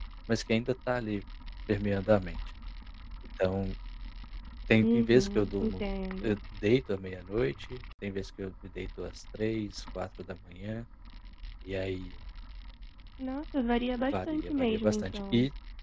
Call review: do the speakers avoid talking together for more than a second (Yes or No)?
No